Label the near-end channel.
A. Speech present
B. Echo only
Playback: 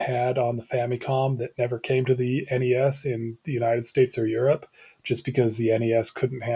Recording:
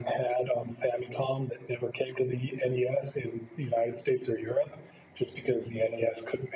B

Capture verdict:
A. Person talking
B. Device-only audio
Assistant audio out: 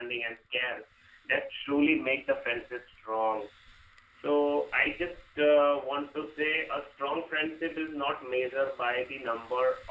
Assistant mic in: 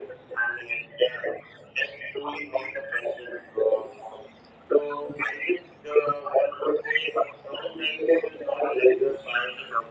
B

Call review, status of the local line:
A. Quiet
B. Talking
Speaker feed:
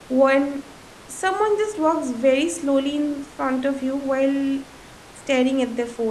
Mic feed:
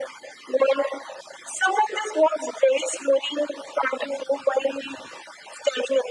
A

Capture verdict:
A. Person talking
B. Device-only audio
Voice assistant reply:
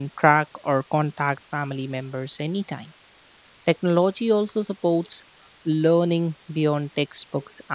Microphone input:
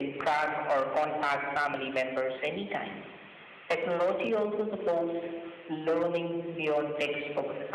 B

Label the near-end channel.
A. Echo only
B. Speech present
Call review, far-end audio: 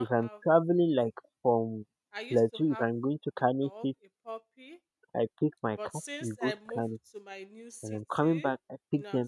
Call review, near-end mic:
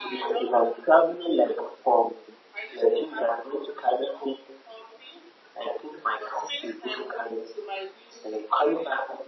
A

